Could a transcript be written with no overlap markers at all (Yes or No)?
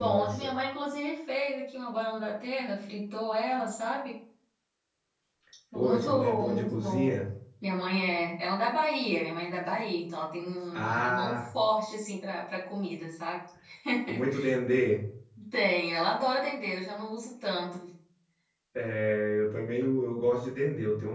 No